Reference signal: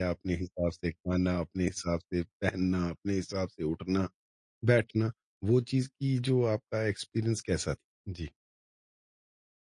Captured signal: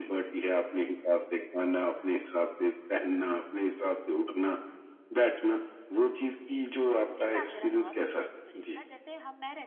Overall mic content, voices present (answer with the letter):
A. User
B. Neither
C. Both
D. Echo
C